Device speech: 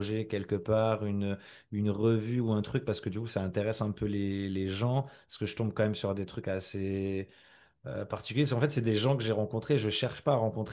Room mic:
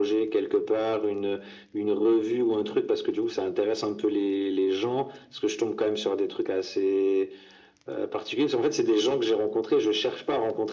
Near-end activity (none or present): none